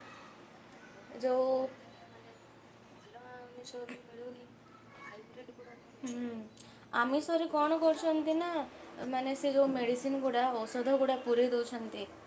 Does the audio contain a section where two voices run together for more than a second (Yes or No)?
Yes